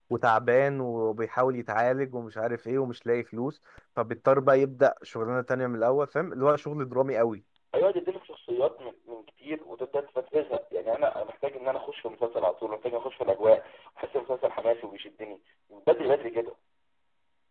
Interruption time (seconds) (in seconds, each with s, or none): none